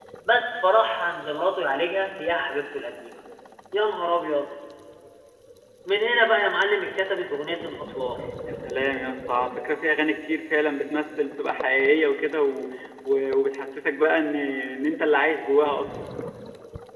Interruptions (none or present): none